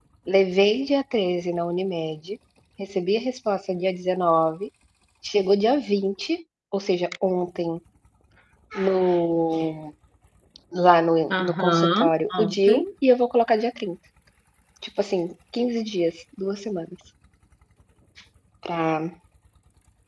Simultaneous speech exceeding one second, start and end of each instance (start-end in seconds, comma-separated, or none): 11.3-12.8